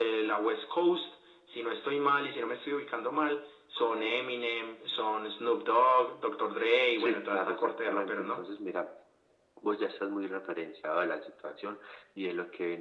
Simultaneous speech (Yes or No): Yes